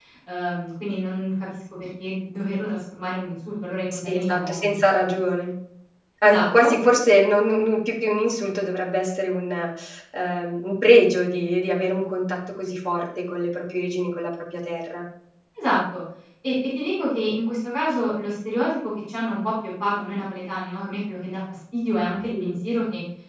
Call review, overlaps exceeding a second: present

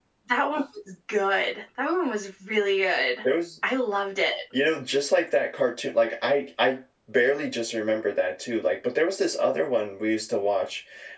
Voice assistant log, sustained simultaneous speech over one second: none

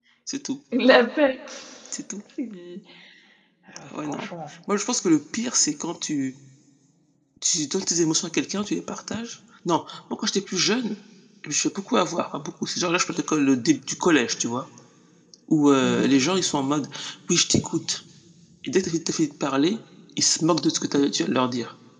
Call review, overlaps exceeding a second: none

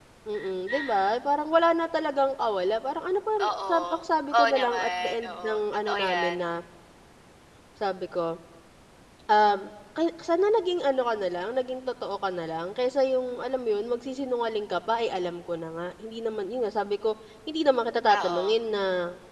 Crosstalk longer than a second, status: present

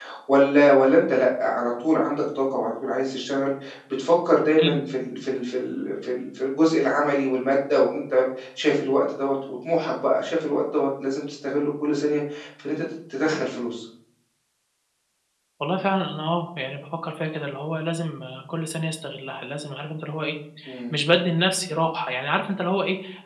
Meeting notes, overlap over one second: none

